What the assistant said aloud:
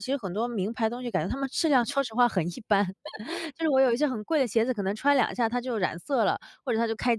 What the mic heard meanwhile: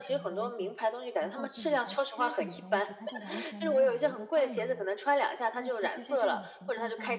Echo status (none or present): present